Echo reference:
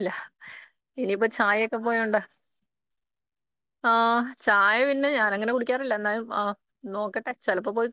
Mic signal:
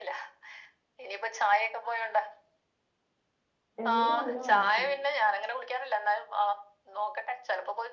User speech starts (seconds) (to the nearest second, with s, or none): 4 s